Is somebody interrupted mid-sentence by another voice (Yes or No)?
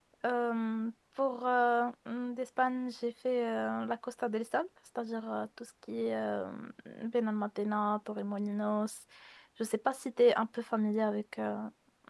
No